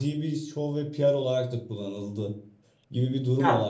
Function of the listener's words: listening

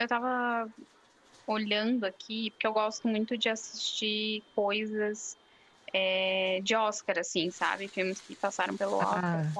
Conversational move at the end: taking over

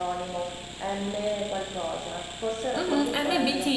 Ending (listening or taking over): taking over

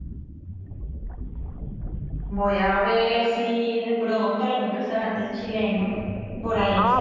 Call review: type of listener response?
taking over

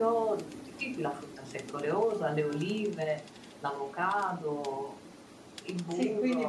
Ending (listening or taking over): taking over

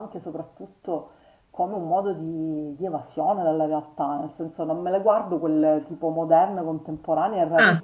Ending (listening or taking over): listening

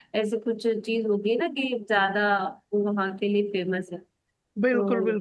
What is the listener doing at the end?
taking over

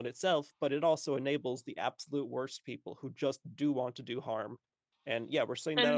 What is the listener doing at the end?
listening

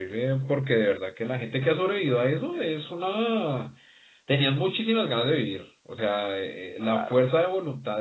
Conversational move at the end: listening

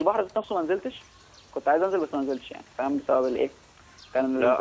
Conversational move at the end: taking over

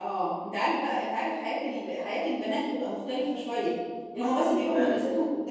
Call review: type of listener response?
listening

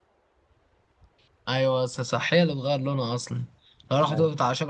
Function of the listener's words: listening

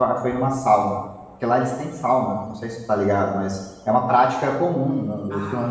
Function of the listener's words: listening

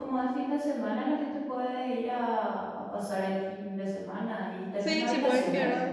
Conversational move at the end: taking over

